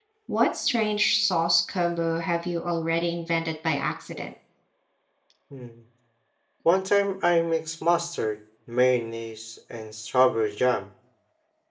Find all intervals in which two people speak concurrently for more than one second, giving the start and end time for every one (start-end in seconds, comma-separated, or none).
none